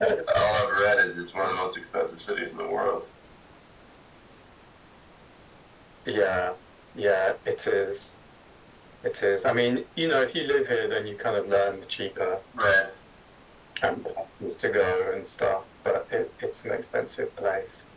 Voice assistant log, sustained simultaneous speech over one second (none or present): none